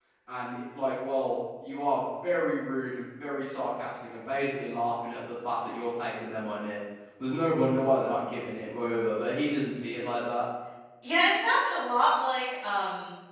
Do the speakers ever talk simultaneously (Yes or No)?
No